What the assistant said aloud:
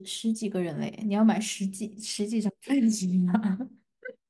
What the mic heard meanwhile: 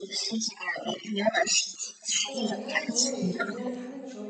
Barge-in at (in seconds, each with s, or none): 2.2 s